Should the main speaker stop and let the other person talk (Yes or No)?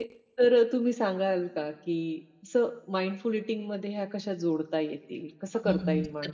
Yes